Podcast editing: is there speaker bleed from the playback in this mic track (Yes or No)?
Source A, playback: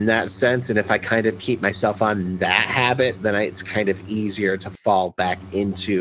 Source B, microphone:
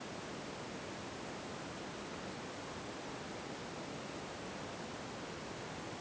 No